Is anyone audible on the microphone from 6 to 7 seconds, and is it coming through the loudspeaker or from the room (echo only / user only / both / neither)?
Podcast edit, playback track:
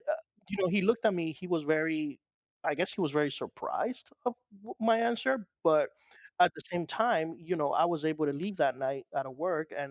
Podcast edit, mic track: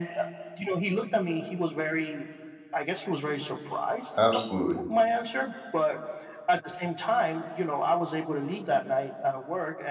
echo only